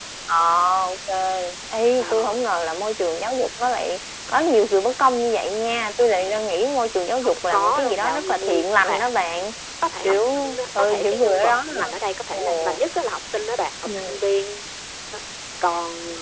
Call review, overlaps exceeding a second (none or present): present